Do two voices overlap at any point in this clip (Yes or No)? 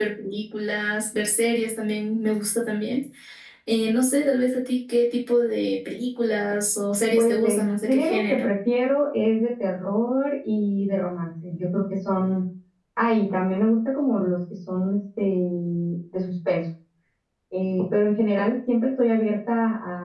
Yes